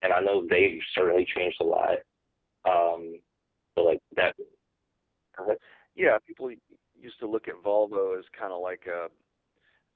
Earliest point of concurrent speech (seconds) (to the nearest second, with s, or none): none